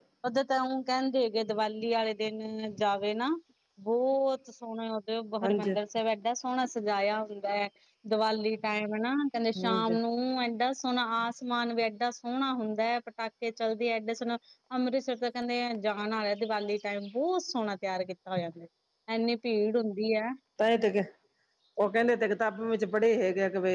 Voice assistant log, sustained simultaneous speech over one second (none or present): none